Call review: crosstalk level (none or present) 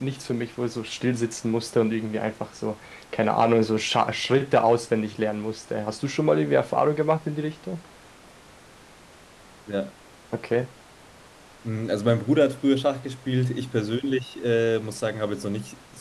none